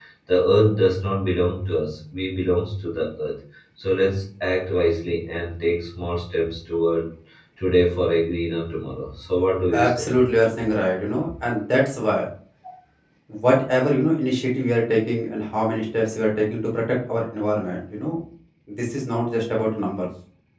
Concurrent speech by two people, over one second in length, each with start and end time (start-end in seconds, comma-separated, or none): none